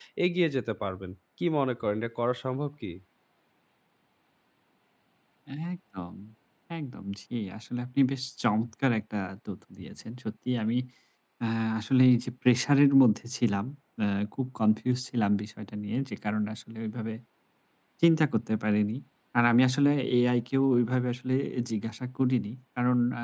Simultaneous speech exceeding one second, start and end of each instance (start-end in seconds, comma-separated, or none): none